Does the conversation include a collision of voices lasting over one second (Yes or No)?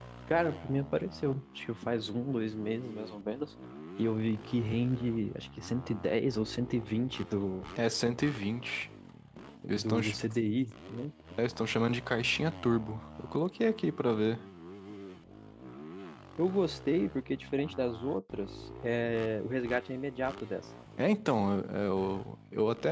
No